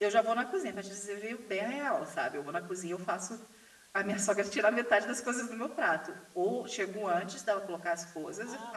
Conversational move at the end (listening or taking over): taking over